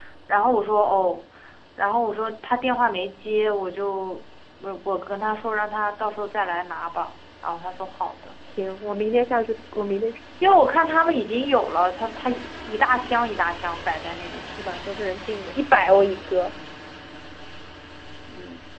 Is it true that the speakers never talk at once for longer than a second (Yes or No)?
Yes